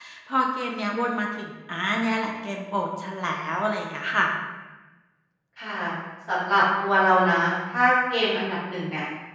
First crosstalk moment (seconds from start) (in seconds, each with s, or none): none